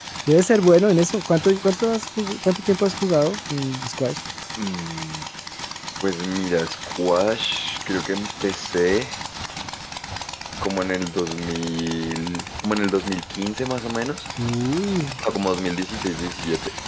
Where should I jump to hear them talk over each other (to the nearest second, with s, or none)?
none